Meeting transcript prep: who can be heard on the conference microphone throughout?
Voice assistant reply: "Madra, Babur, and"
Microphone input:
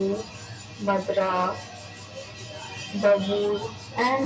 echo only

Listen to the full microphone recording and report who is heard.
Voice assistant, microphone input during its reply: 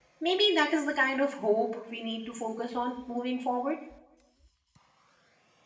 user only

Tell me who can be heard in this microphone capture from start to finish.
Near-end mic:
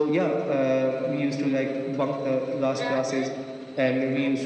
both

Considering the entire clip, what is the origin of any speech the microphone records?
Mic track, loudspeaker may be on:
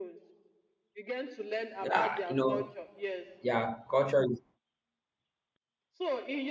both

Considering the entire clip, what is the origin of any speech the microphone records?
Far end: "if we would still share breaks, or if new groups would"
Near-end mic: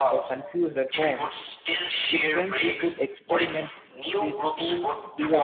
both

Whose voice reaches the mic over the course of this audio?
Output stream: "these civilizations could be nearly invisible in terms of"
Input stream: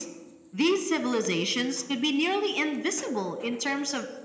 echo only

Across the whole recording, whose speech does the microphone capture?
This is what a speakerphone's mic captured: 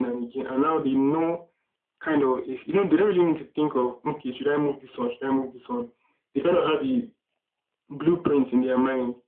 echo only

